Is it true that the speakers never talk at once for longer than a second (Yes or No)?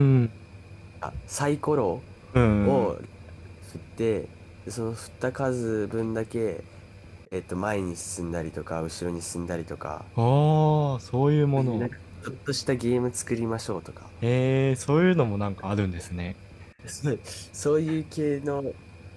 Yes